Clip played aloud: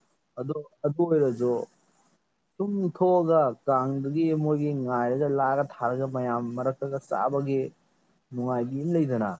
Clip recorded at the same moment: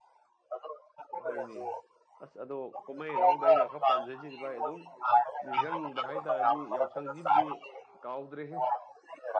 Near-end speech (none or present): present